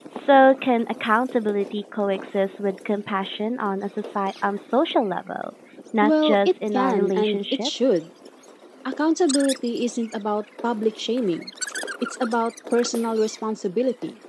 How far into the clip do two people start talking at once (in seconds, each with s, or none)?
6.0 s